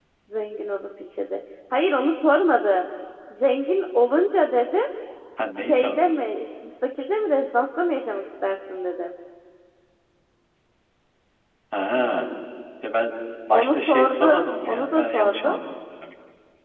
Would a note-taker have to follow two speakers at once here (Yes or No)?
Yes